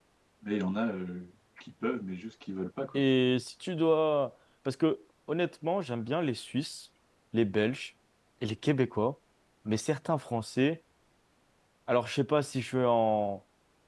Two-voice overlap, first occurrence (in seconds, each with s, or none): none